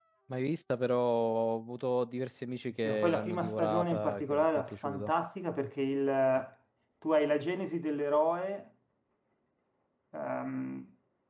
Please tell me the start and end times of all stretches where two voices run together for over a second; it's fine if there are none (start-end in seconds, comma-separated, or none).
2.8-5.1